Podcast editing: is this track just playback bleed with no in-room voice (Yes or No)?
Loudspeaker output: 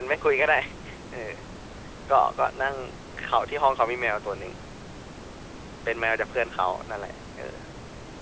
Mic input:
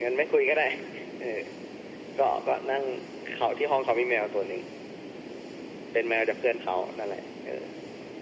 Yes